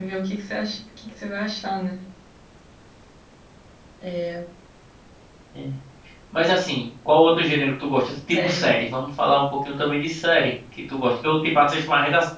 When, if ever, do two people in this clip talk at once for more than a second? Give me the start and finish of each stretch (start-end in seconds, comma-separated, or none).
none